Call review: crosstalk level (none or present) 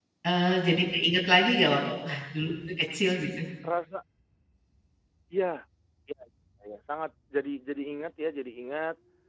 none